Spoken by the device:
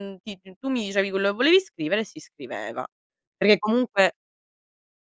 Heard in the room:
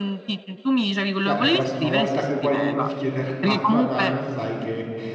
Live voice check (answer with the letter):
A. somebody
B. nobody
A